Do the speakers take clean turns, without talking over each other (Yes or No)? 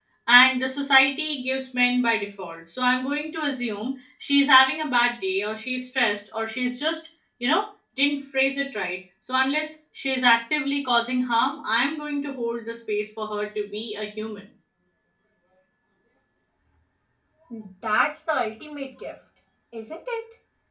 Yes